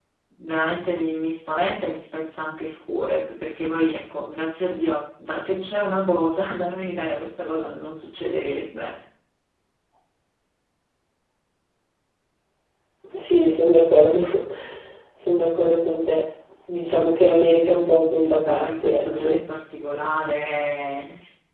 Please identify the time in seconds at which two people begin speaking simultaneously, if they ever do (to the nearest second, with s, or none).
18 s